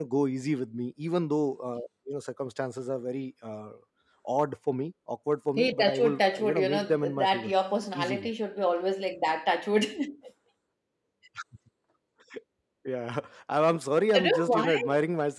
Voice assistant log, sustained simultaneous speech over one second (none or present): present